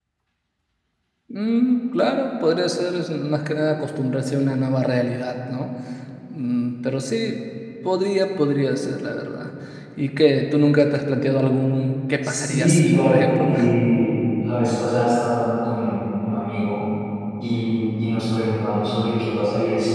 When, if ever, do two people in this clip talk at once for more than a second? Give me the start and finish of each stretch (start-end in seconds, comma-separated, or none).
12.2-13.5